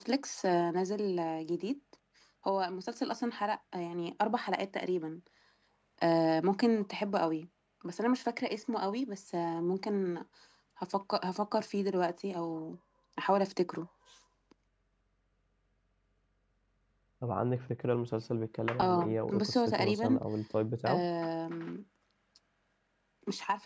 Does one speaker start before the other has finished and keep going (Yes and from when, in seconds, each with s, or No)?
Yes, from 18.8 s